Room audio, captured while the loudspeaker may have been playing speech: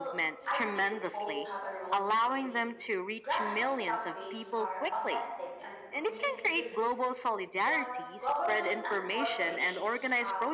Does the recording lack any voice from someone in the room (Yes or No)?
No